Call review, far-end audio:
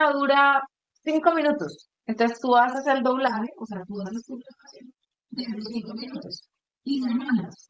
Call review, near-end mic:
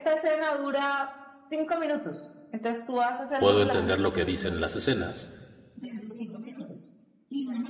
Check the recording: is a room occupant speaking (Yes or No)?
Yes